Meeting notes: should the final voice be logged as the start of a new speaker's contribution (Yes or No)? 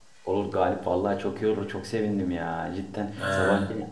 No